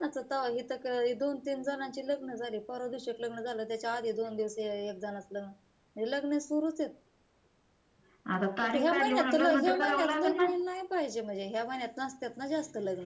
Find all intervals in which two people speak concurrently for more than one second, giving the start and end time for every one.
8.6-10.4

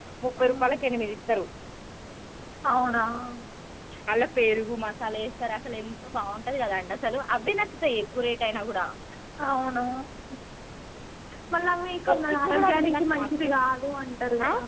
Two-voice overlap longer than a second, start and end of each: 12.1-13.3

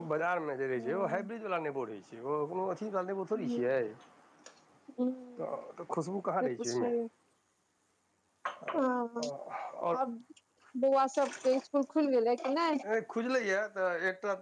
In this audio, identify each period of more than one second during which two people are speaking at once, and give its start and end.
none

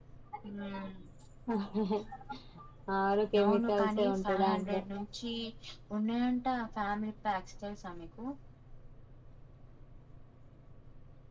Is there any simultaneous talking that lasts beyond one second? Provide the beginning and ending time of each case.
3.4-4.8

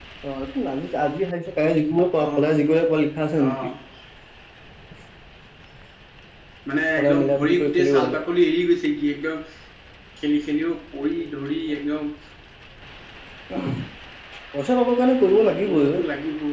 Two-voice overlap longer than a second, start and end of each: 7.0-8.2

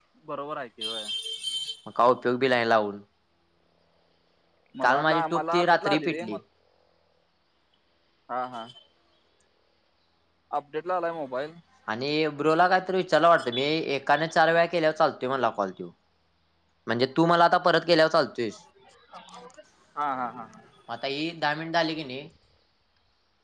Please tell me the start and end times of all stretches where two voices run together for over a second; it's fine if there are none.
4.8-6.4

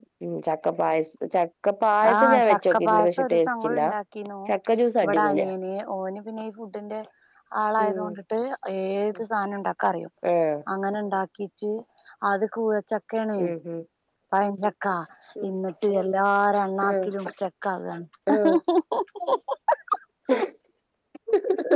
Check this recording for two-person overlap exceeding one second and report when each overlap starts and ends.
2.1-3.8

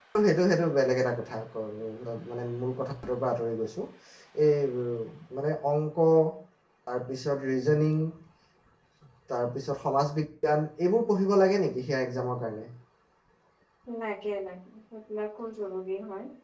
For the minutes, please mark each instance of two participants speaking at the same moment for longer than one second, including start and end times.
none

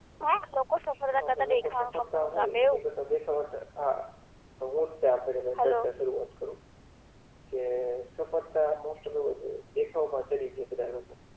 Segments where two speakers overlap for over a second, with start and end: 1.1-2.8

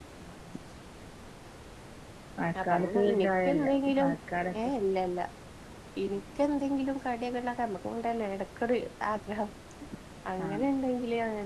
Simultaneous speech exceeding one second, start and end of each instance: 2.6-4.1

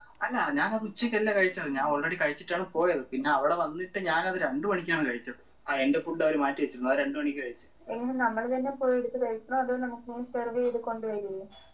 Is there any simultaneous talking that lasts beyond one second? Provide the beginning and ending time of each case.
none

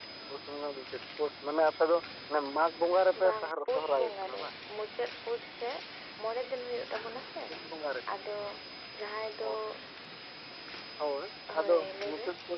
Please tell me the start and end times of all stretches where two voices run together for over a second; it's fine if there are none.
3.2-4.5

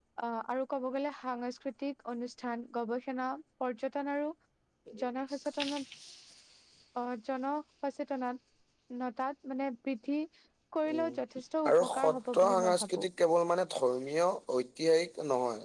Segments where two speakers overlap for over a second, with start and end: 11.7-13.0

